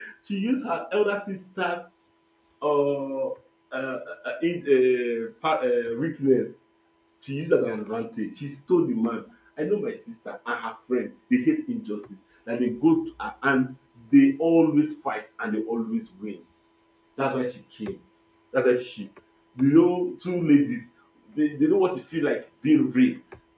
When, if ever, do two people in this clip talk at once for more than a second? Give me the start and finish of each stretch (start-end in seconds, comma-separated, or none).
none